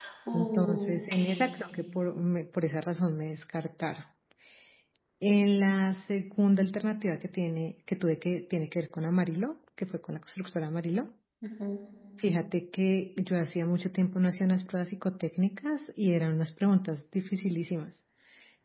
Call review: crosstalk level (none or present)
present